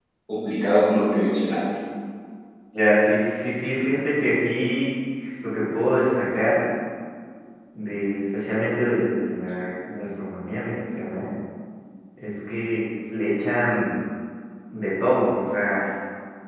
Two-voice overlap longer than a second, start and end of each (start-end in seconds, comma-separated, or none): none